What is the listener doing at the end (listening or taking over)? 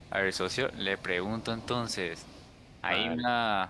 listening